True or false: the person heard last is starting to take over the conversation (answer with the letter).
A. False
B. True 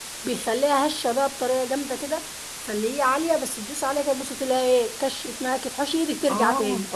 B